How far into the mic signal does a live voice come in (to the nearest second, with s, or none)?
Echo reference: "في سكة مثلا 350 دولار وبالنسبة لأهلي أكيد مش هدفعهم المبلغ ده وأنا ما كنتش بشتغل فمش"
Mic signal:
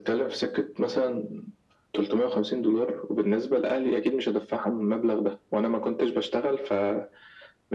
none